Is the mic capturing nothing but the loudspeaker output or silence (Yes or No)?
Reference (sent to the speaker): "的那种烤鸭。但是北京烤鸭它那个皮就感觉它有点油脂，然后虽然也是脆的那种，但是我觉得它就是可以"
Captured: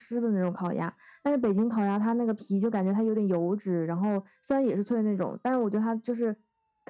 Yes